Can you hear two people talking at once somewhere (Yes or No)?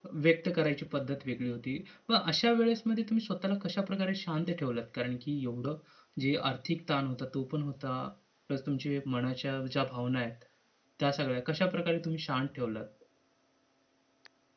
No